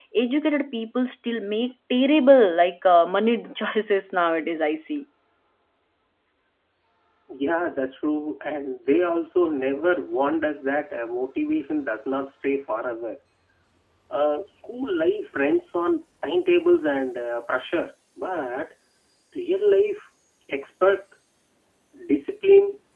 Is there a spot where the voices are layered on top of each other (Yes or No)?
No